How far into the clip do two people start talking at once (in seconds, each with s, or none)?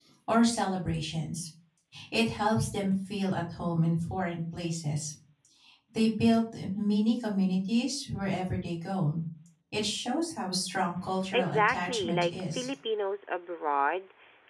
11.3 s